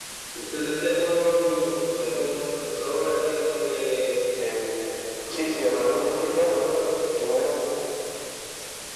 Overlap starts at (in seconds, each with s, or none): 5.3 s